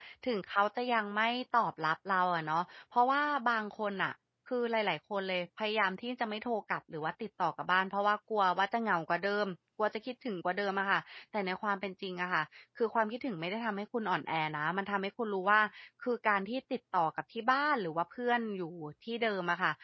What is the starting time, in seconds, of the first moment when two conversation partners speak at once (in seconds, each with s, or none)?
none